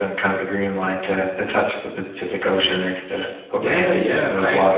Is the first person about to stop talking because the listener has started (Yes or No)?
Yes